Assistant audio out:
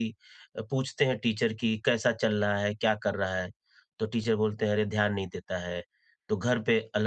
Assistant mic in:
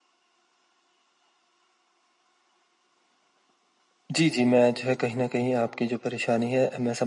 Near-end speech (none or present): present